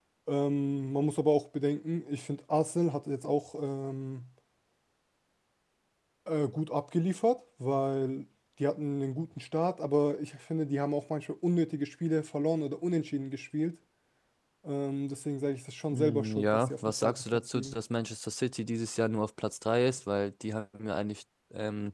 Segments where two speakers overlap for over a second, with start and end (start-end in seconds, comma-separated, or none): 15.9-17.8